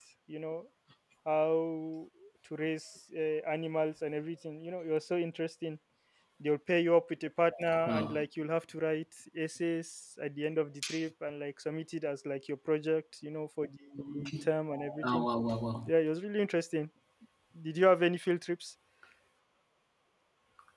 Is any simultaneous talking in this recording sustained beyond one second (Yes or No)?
No